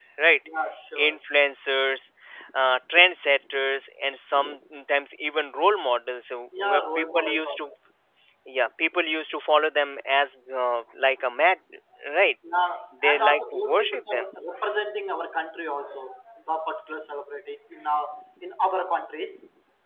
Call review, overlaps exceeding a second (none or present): present